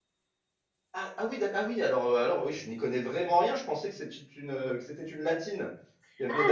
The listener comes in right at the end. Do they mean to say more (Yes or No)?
Yes